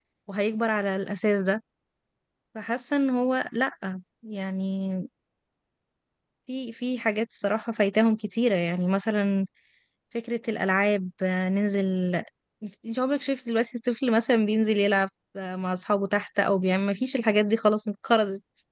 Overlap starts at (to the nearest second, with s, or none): none